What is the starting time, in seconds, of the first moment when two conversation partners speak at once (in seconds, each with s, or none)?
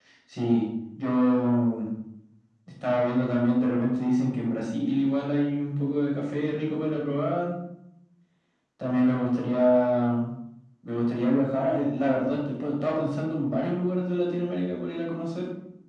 none